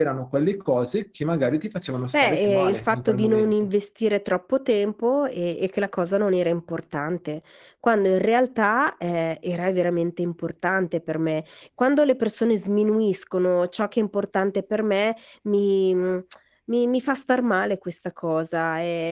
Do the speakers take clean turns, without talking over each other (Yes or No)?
No